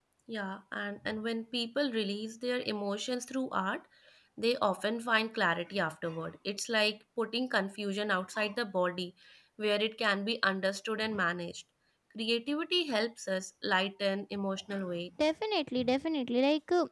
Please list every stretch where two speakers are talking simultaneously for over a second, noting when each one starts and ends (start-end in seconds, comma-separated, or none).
none